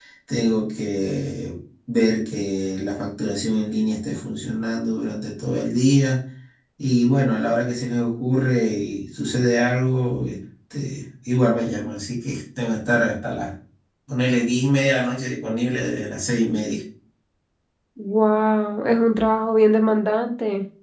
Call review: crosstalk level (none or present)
none